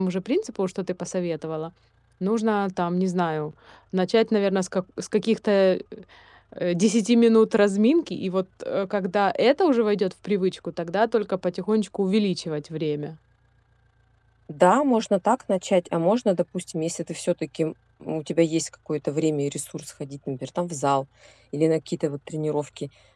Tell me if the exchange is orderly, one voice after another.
Yes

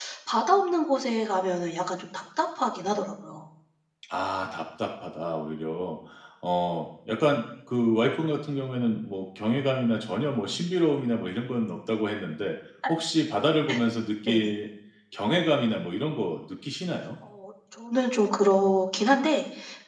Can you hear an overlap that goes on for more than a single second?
No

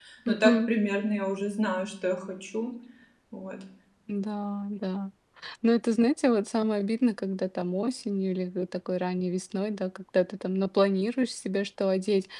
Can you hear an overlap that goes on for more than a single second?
No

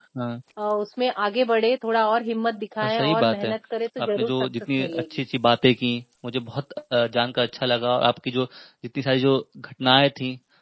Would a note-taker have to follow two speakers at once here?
Yes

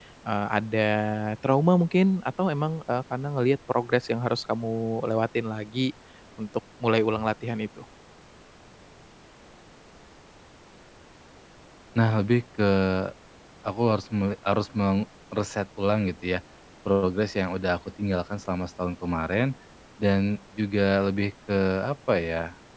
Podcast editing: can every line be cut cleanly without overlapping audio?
Yes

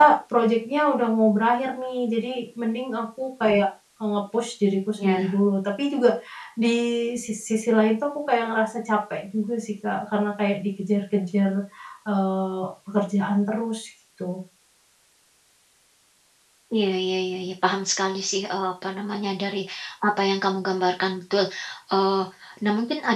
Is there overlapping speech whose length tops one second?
No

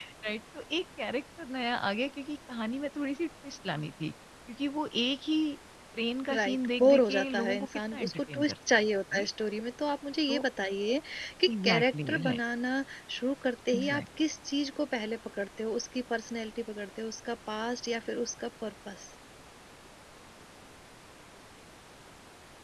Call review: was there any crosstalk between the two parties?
Yes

